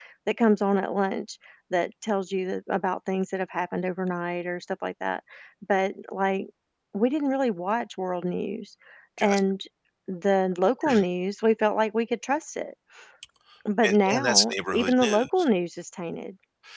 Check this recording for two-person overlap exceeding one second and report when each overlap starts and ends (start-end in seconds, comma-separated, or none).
13.8-15.5